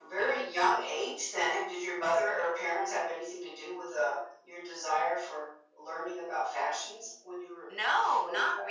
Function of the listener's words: taking over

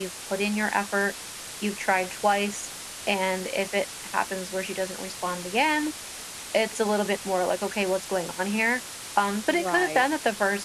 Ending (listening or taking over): listening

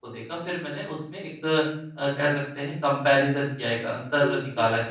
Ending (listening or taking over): listening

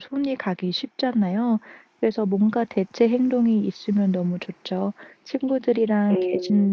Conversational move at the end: listening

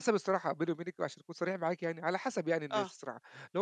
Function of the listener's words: listening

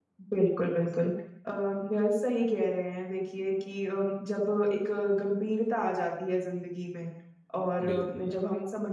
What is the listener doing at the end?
listening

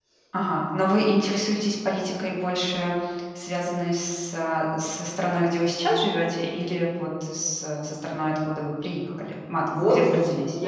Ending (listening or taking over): taking over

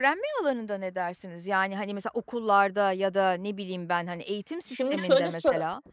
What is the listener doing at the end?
taking over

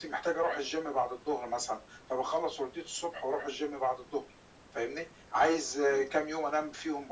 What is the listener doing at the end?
listening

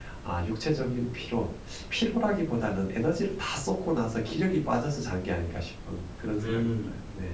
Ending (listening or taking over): taking over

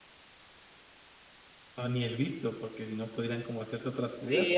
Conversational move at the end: taking over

